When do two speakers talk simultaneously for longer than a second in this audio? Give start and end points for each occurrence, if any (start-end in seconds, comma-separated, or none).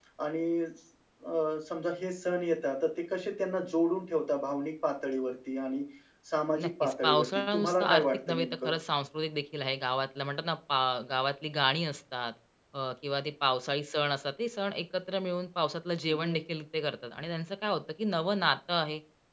6.6-8.7